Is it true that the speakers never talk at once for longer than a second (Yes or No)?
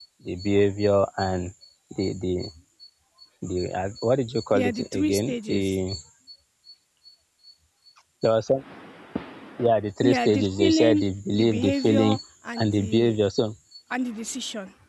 No